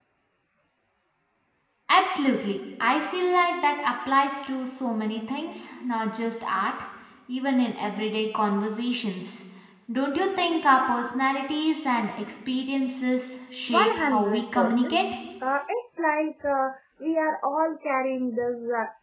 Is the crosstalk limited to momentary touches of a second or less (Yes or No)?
No